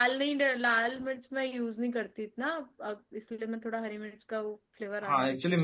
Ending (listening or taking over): taking over